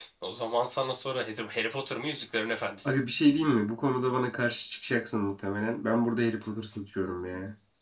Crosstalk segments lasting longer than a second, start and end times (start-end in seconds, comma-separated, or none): none